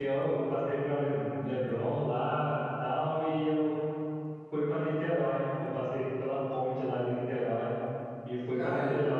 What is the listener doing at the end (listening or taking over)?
taking over